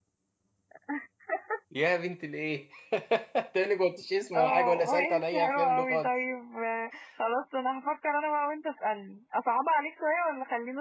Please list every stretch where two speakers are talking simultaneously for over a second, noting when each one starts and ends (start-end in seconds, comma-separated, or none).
4.3-6.1